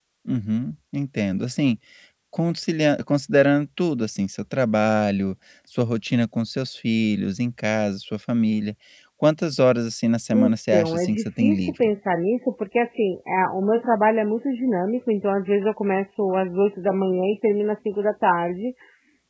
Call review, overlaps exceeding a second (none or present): present